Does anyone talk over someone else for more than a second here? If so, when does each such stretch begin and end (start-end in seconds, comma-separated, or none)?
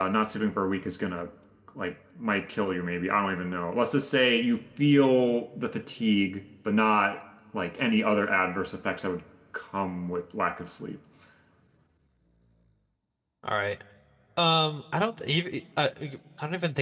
none